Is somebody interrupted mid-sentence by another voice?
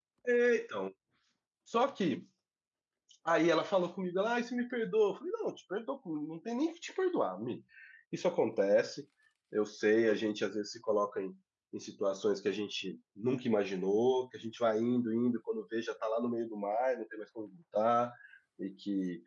No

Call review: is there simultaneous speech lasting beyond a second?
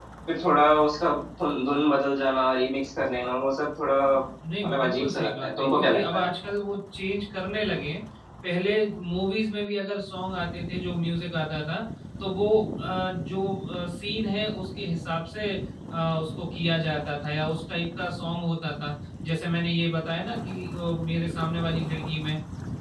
Yes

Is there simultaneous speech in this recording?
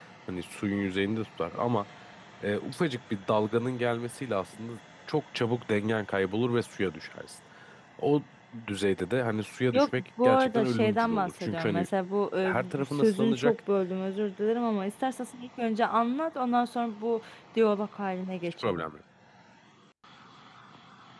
Yes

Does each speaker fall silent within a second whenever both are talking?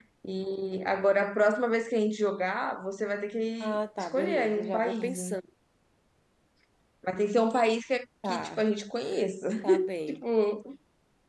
No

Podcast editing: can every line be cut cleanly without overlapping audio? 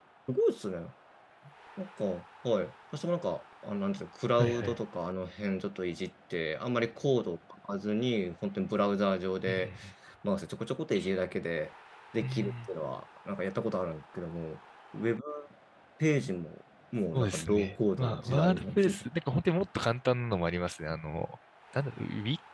No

